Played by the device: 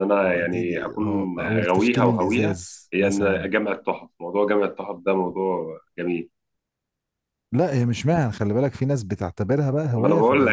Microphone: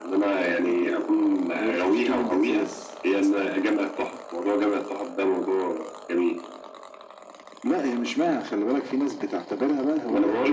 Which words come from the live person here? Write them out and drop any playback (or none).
none